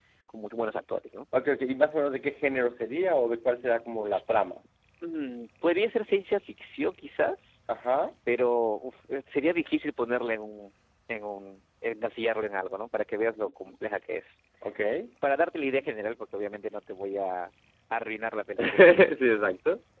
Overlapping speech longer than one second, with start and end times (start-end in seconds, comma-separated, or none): none